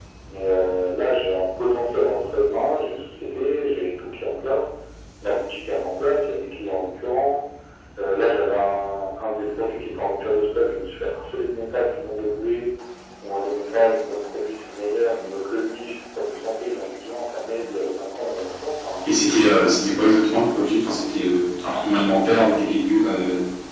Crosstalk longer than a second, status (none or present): none